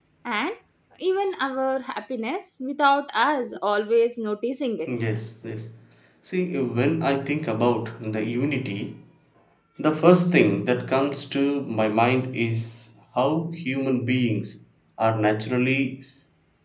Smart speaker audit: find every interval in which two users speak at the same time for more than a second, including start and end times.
none

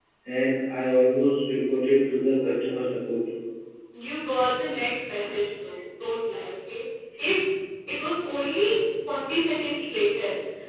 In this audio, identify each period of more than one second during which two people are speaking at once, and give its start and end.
none

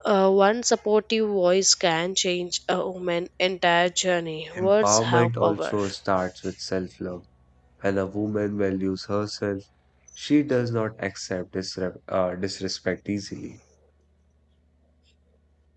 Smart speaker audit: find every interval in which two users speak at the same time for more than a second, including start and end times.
4.6-5.8

